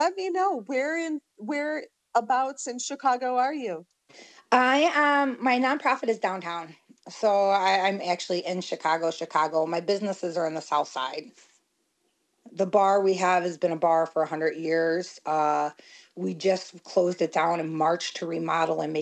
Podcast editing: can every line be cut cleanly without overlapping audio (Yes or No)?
Yes